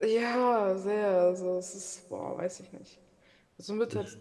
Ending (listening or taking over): listening